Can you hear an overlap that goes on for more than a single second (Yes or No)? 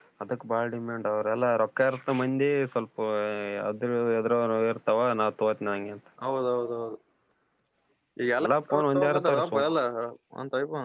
Yes